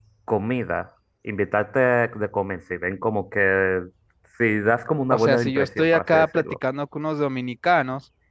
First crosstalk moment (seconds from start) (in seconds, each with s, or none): 5.1 s